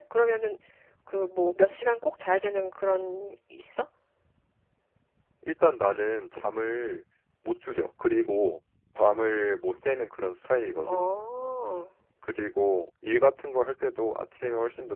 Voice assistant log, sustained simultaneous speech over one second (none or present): none